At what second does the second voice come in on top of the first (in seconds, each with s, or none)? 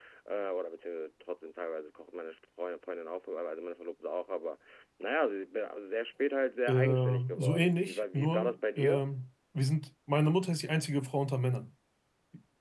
6.7 s